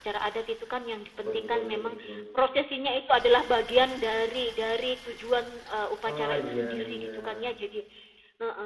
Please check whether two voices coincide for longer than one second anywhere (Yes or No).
Yes